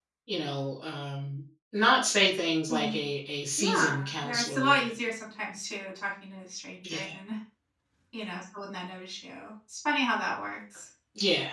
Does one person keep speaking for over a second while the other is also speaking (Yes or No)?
Yes